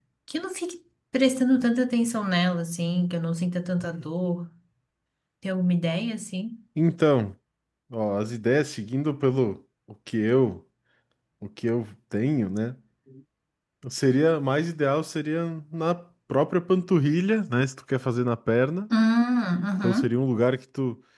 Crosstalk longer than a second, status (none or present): none